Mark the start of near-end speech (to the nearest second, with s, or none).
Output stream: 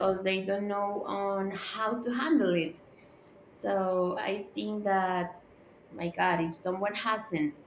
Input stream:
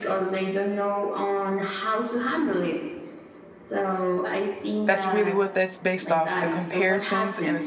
5 s